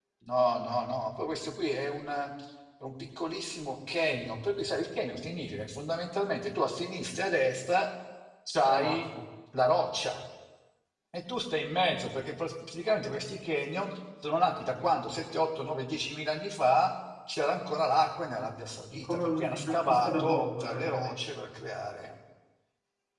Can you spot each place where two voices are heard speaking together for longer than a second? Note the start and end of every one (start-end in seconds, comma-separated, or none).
18.9-21.2